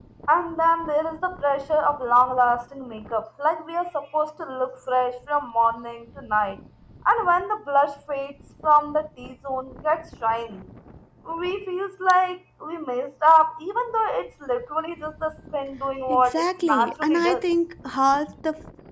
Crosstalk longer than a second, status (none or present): present